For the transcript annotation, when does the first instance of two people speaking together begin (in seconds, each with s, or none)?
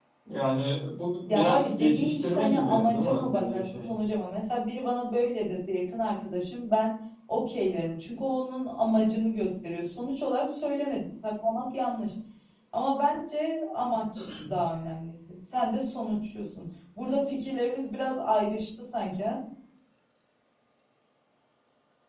1.3 s